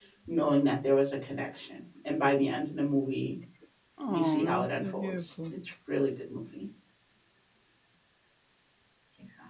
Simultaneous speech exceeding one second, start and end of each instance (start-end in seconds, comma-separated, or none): 4.0-5.5